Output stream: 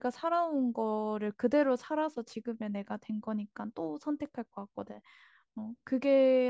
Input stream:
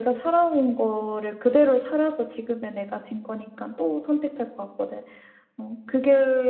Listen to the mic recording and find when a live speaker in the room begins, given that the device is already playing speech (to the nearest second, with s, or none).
none